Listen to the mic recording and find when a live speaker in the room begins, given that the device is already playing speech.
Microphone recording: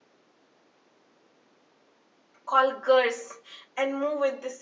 2.4 s

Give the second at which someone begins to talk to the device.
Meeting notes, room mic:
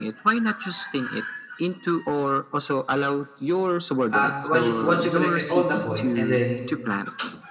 4.1 s

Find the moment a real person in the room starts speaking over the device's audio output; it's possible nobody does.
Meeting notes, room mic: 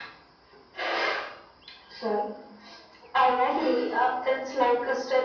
none

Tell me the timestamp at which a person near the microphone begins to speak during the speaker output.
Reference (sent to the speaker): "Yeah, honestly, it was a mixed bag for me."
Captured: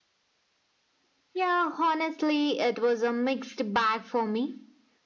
none

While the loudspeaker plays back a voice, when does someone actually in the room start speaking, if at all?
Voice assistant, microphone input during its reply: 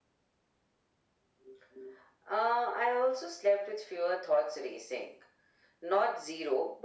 none

